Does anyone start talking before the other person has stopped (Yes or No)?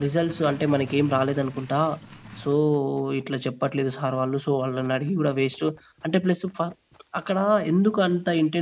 No